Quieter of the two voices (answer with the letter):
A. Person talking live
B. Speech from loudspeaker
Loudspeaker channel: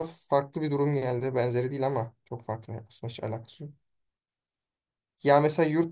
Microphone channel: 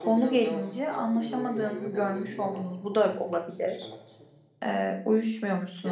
B